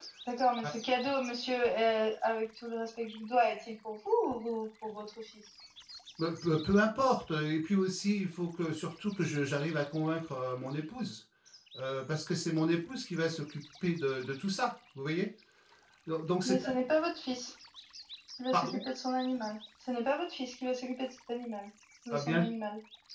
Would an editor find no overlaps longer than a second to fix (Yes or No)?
Yes